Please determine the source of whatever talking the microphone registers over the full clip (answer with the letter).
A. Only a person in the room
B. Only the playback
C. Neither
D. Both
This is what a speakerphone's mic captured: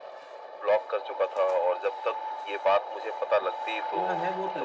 D